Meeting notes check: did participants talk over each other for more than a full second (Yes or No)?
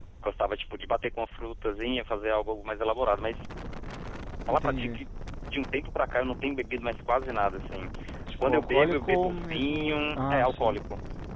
Yes